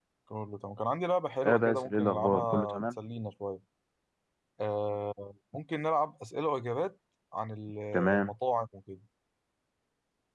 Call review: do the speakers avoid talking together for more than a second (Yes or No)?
No